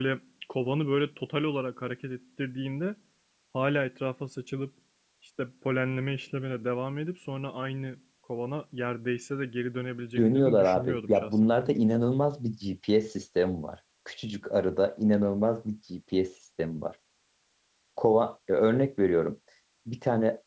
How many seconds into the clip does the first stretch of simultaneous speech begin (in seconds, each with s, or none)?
10.2 s